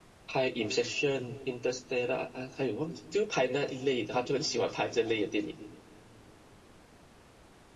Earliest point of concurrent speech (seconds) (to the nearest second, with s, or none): none